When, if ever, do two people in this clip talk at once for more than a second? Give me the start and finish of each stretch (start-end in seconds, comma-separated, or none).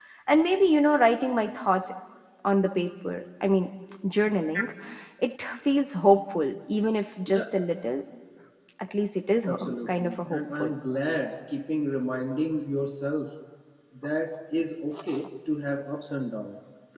9.4-10.7